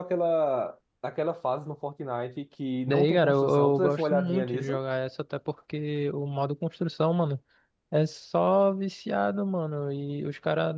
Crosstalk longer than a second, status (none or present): present